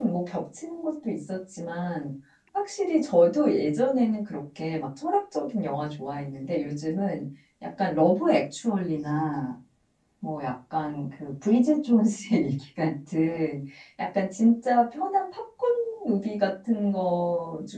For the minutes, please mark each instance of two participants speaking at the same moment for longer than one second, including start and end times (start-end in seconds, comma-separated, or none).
none